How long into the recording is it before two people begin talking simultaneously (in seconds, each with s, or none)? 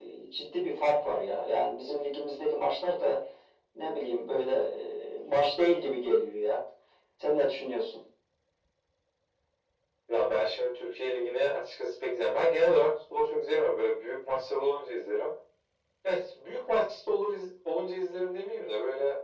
none